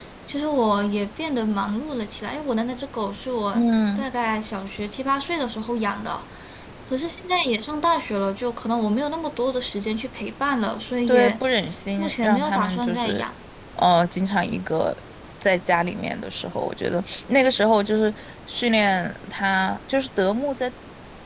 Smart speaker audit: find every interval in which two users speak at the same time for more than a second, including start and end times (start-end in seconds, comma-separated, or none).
12.0-13.2